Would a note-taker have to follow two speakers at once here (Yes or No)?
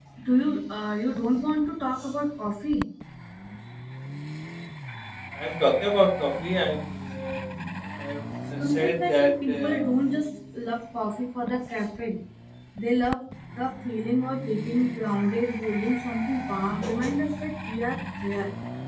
Yes